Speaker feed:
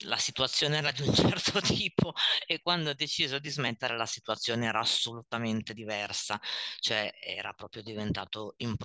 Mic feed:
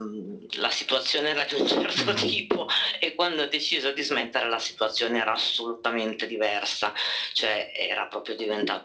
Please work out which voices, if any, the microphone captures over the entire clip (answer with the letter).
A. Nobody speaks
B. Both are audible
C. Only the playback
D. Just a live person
B